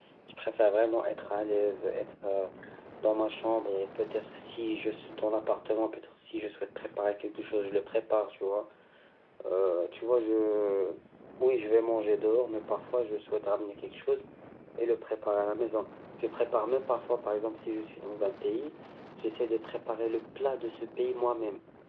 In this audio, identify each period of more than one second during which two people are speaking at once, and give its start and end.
none

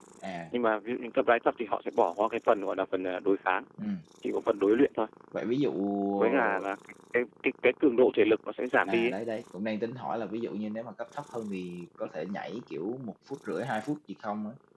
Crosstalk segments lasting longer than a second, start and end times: none

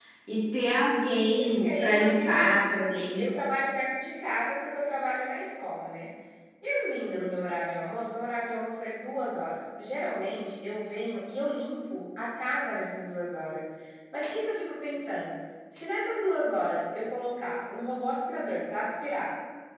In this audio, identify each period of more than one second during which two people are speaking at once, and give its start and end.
1.2-3.3

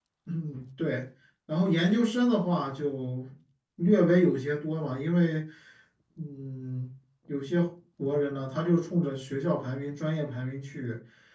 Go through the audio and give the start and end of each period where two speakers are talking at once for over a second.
none

